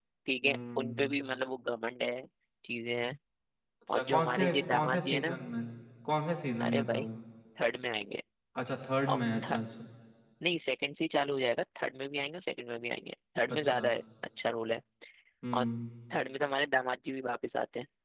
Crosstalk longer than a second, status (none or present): present